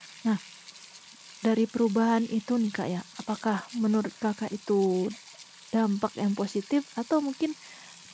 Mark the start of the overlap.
none

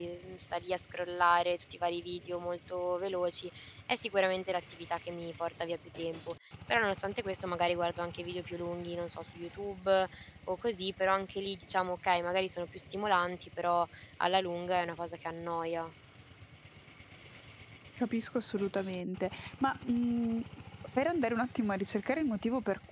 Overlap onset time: none

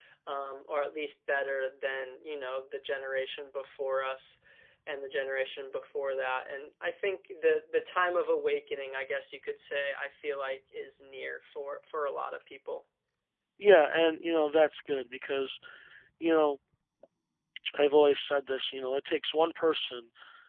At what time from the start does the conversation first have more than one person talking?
none

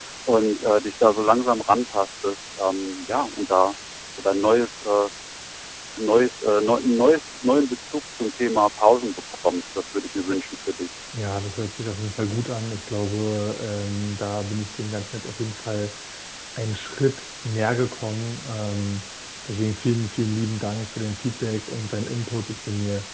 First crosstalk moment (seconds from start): none

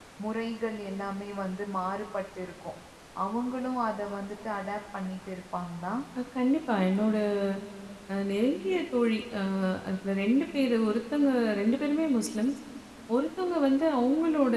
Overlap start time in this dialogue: none

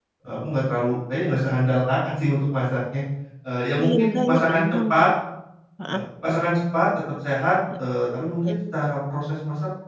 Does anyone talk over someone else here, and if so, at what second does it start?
3.8 s

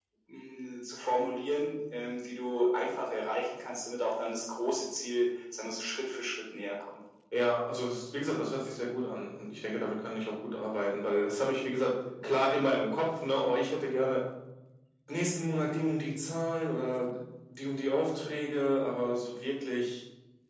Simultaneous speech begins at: none

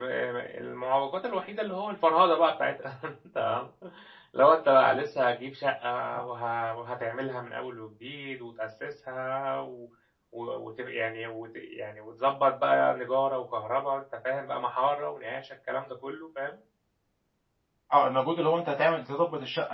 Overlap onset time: none

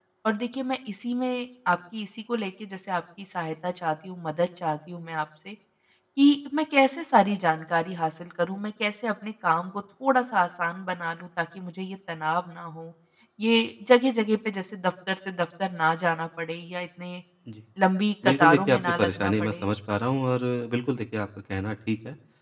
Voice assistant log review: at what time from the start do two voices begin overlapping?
18.2 s

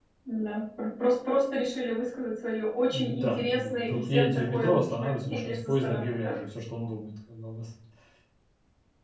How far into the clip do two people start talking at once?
2.9 s

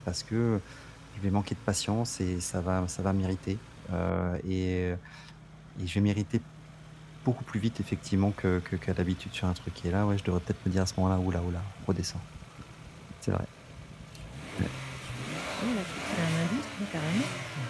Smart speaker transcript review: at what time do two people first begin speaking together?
none

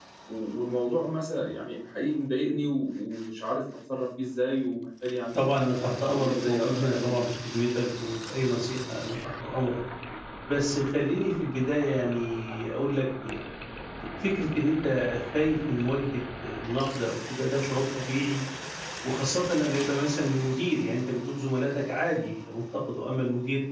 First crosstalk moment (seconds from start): 5.3 s

